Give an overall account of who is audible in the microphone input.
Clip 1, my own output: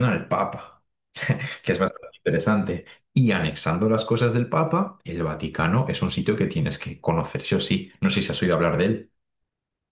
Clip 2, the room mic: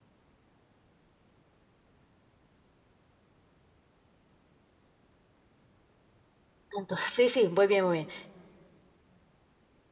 user only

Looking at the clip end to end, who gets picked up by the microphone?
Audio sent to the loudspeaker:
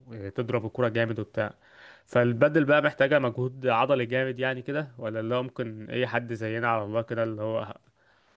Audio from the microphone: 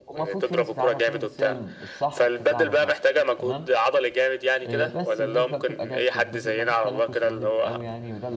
both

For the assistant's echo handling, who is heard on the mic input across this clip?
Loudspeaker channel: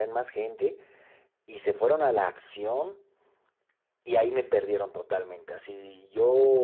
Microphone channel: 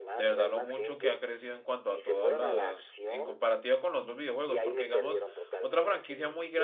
both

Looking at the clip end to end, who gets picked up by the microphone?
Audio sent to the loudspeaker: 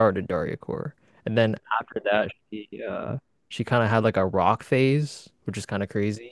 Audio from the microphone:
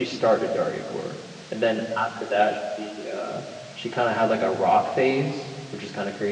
echo only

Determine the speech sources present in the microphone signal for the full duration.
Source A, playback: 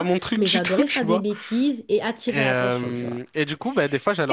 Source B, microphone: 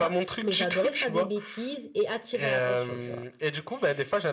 echo only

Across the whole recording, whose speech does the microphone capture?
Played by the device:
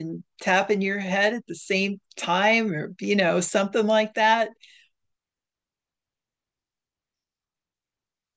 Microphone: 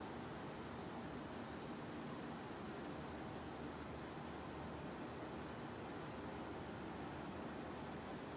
neither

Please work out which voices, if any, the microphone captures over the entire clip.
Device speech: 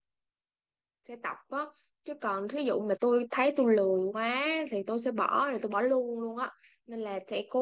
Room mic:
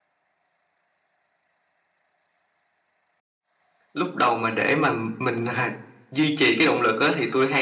user only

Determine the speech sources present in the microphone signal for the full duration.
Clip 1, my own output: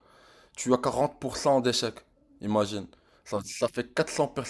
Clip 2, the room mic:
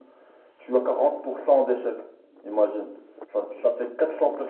echo only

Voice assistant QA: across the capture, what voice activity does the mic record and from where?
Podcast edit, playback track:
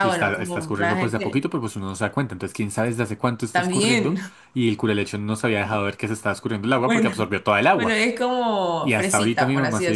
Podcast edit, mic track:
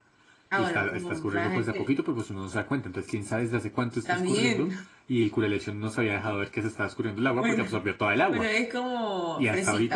echo only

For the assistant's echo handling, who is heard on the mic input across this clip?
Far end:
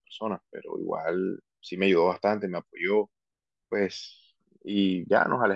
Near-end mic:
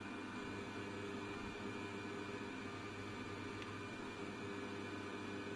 neither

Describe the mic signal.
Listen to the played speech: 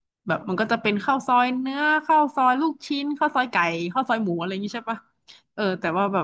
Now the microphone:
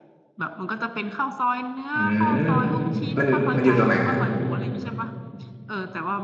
both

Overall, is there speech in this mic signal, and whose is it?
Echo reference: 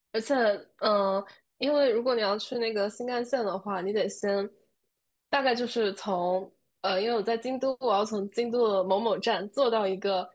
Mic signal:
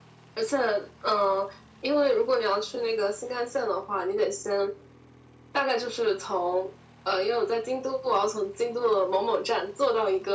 echo only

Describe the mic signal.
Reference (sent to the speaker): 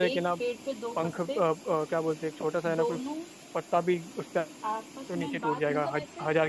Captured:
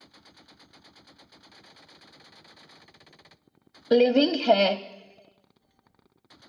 user only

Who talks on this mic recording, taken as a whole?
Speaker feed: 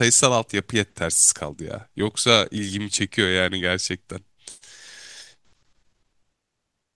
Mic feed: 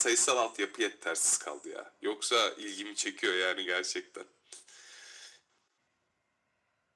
echo only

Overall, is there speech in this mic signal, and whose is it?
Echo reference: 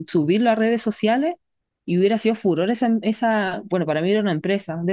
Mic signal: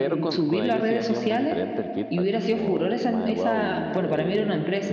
both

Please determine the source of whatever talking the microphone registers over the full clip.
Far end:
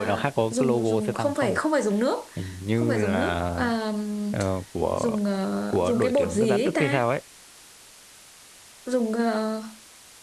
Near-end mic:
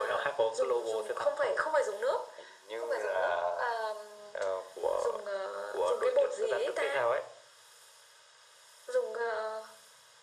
echo only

